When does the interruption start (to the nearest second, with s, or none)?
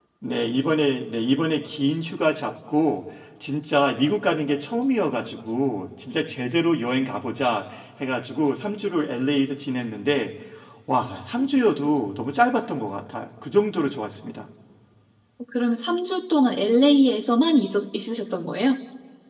none